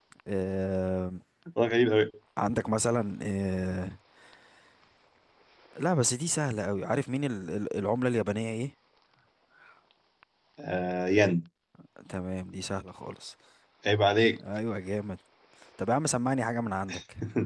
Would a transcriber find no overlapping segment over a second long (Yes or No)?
Yes